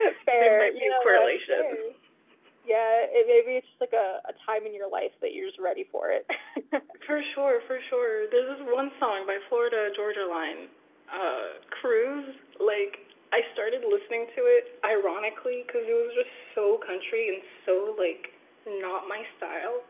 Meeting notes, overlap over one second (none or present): present